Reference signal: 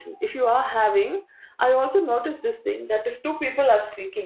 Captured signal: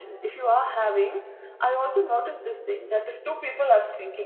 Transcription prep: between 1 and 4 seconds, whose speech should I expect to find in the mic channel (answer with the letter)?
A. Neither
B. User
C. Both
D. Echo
D